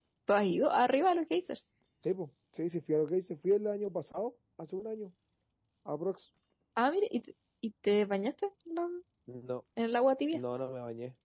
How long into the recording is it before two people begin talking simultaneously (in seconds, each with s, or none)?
none